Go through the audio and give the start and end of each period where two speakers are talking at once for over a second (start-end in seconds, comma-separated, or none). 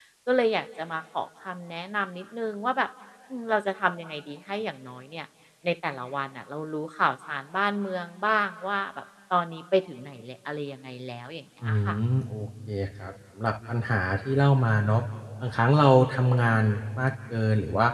none